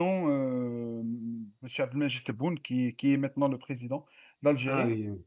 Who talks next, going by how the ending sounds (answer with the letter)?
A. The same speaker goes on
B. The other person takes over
A